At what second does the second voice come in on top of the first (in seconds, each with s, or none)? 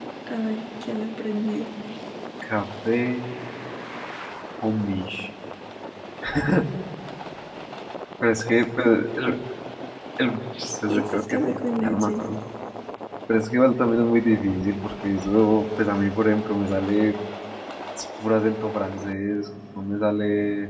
10.9 s